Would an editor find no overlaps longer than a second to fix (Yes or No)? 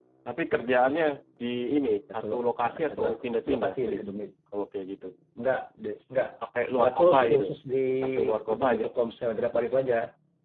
No